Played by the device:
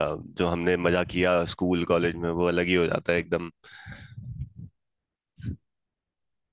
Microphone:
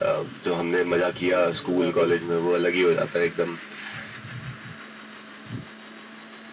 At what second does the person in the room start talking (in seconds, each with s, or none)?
1.2 s